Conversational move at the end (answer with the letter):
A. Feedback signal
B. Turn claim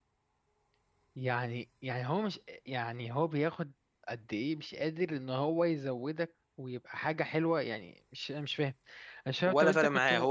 B